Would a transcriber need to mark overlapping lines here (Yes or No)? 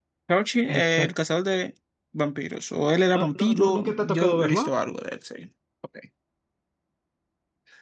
Yes